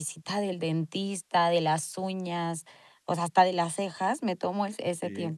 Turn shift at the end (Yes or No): No